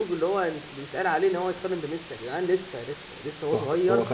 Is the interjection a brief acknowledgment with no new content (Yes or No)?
No